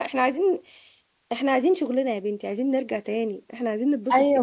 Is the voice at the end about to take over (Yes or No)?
Yes